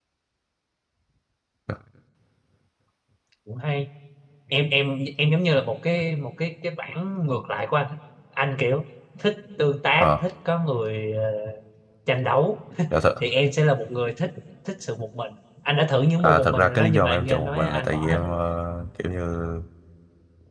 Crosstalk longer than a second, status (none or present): present